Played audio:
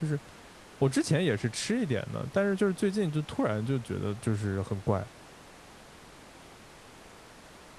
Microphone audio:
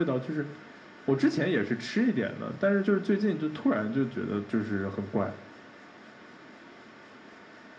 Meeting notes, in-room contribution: none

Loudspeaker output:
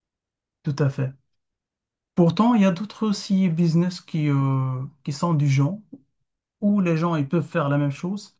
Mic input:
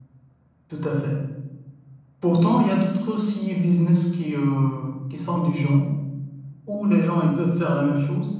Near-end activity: none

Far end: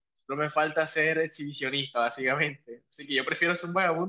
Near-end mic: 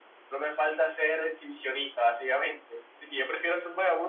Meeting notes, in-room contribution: none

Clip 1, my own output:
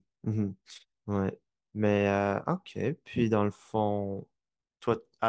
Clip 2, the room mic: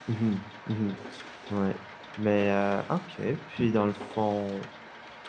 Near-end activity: none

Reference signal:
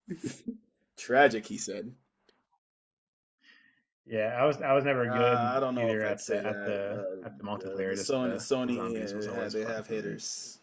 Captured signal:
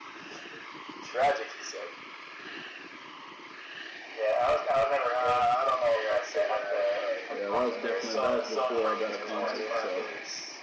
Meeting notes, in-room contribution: present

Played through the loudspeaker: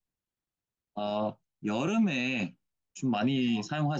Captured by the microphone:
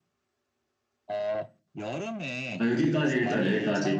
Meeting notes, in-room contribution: present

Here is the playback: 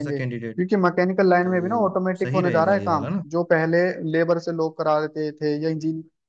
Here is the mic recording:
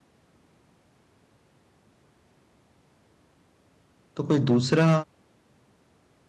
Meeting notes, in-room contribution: present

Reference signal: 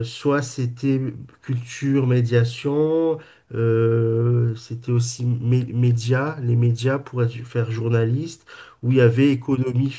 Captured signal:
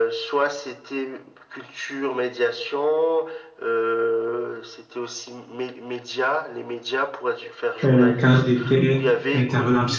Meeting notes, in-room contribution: present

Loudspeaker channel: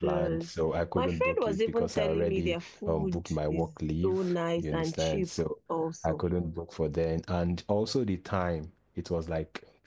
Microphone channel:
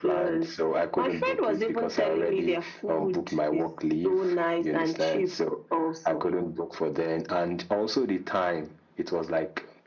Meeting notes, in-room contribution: none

